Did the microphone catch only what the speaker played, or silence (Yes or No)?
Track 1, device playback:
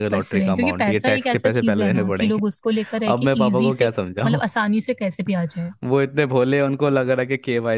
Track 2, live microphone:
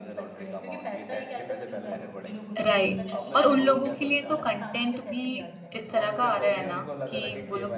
No